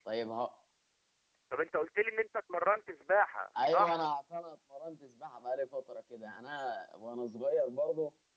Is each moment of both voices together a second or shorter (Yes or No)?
Yes